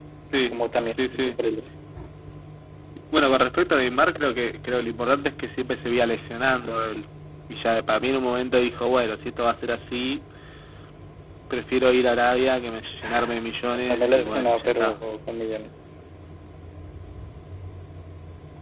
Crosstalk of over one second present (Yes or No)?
Yes